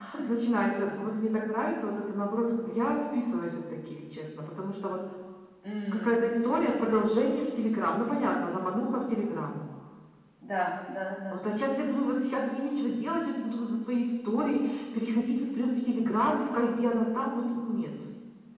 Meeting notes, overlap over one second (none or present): none